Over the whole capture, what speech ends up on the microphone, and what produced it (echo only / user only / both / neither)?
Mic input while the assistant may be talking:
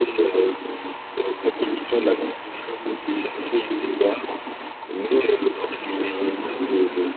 both